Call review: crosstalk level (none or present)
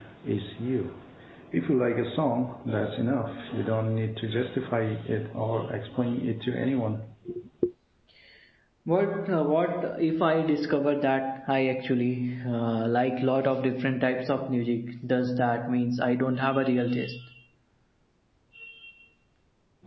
none